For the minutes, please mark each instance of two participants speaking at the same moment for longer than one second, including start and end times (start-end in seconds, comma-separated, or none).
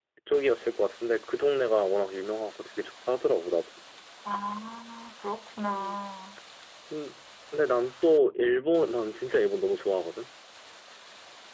none